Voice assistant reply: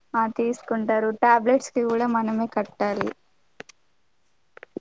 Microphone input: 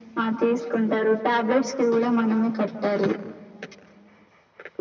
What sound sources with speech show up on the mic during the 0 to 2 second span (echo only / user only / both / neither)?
echo only